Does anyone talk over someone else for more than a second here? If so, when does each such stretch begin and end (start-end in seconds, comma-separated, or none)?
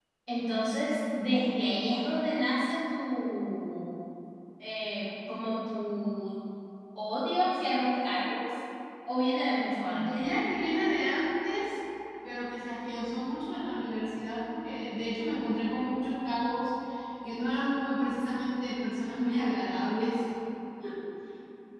none